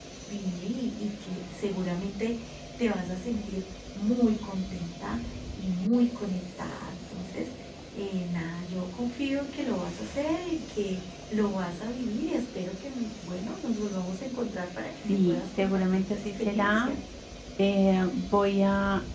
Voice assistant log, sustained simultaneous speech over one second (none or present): present